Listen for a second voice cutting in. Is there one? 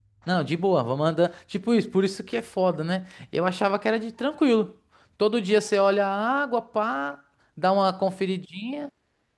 No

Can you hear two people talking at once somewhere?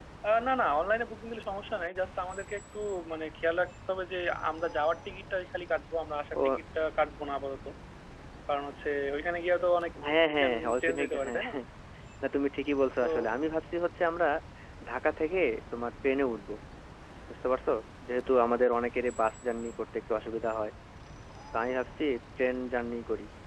Yes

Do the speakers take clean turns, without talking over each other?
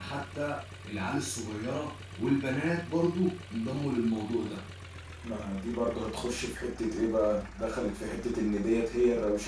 Yes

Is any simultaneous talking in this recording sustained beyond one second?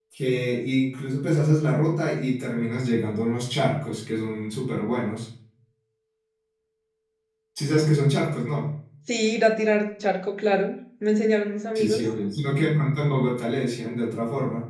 No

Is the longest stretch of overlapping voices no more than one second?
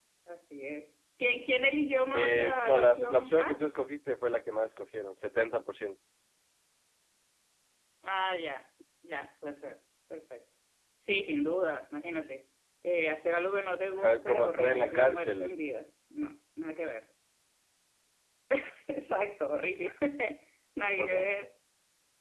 No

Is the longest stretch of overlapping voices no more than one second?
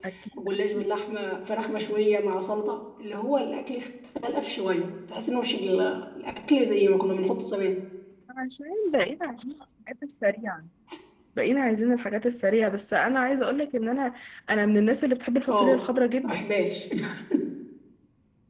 Yes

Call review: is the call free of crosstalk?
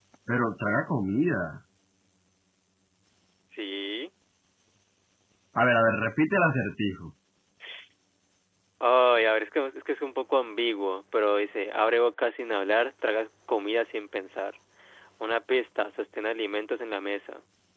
Yes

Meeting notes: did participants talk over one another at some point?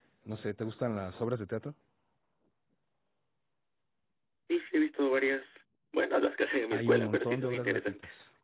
Yes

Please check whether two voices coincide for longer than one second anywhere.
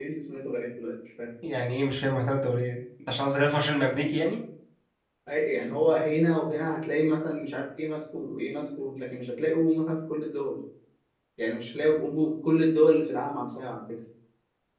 No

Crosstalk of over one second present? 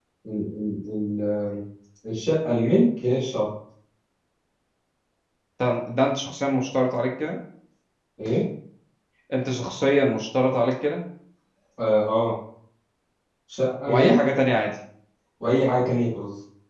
No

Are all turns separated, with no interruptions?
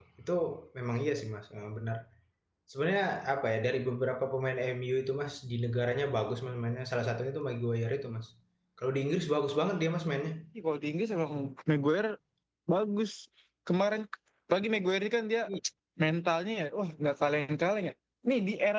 Yes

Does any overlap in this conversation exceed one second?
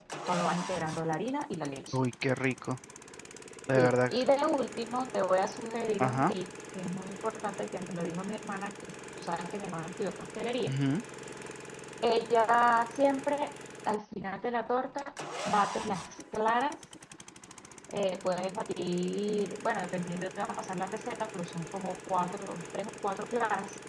No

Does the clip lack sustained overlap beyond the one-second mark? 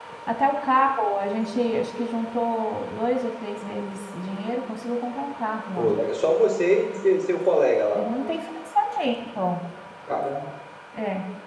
Yes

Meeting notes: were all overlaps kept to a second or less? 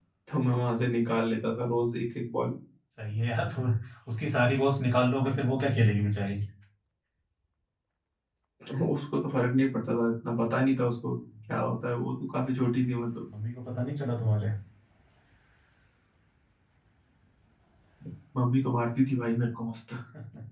Yes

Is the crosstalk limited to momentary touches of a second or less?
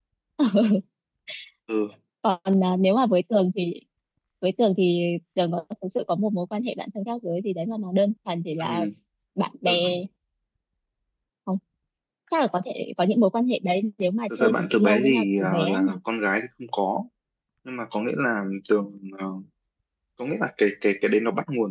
No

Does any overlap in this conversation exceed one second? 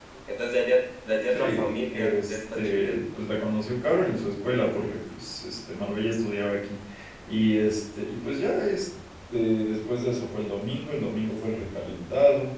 Yes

